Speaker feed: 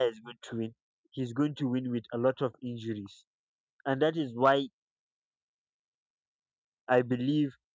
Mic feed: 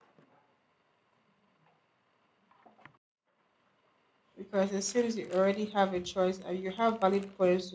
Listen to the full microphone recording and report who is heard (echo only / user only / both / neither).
user only